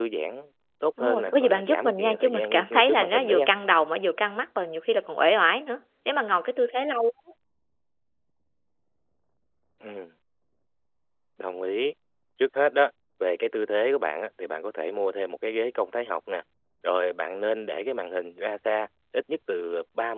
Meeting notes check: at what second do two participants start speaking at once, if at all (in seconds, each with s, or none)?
1.0 s